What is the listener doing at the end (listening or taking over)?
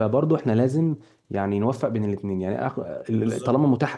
listening